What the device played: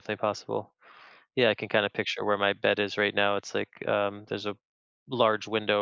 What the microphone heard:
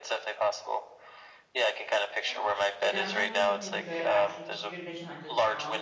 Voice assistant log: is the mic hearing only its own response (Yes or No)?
No